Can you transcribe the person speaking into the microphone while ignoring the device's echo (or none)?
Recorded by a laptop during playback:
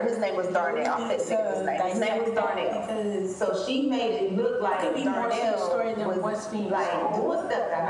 none